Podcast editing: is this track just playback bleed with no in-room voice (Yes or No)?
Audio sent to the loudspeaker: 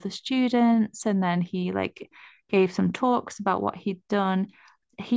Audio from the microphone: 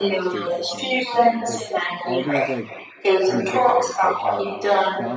No